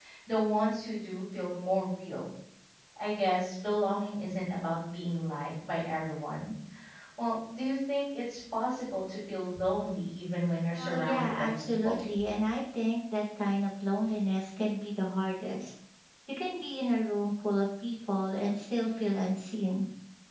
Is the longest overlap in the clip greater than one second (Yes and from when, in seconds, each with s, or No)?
Yes, from 10.7 s